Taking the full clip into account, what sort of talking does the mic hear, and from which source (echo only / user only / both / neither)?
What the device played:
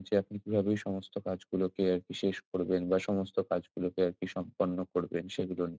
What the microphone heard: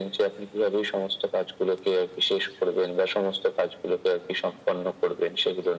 echo only